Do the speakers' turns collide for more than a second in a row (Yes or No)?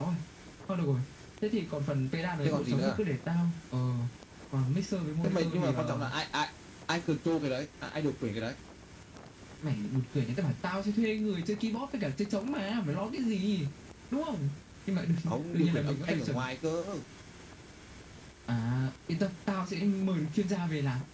Yes